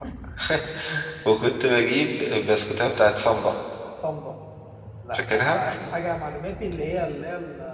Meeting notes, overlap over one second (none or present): none